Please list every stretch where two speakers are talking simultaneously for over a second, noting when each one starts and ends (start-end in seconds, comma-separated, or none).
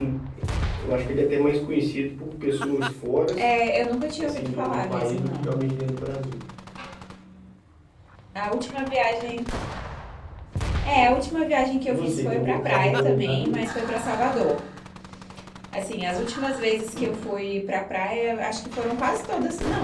4.2-5.5, 11.9-13.6